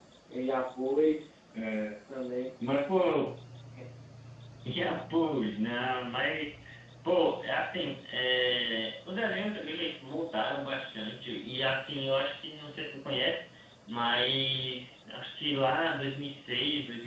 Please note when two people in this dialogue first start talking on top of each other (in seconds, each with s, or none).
none